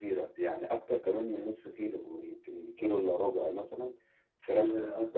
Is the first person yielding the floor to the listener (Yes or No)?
No